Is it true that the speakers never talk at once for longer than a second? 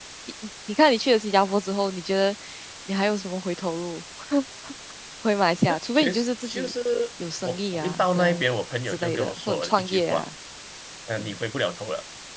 No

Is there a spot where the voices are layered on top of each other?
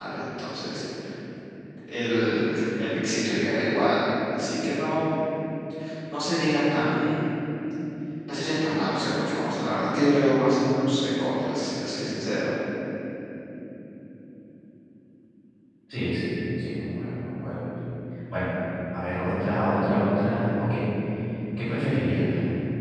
No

